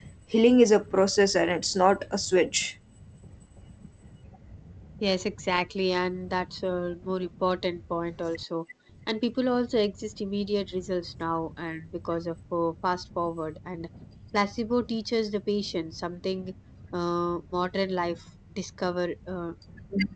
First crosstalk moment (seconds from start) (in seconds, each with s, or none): none